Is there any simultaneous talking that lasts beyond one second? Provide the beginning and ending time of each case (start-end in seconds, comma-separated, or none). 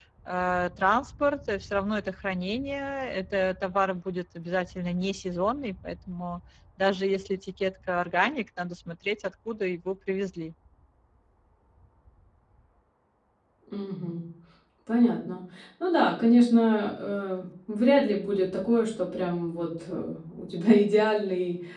none